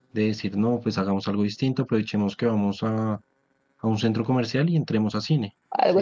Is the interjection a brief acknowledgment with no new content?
No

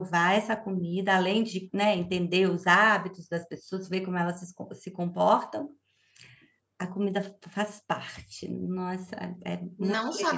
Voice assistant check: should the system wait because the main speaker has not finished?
No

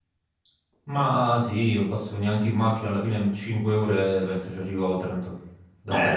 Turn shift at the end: Yes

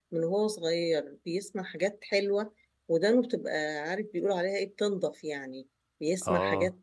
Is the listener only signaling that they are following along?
Yes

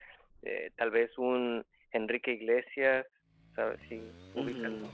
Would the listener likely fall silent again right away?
No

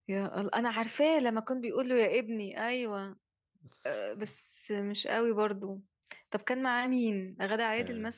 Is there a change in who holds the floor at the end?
Yes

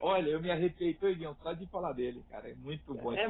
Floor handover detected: Yes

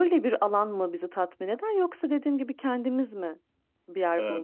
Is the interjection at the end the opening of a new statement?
Yes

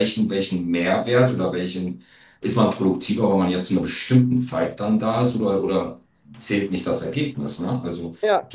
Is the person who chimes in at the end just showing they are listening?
Yes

